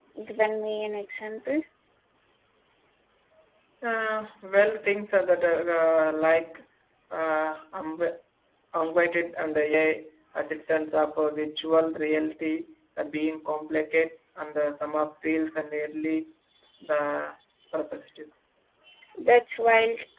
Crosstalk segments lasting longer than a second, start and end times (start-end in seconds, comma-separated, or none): none